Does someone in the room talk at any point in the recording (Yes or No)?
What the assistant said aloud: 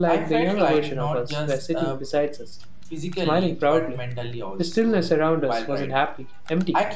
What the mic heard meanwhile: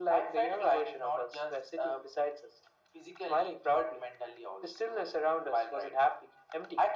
No